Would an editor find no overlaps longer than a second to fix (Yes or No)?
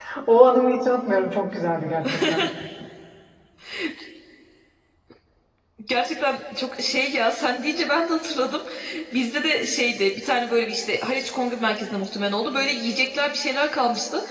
Yes